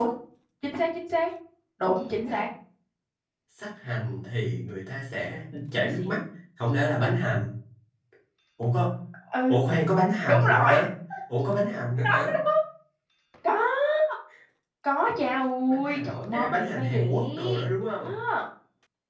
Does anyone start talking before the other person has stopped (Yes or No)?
Yes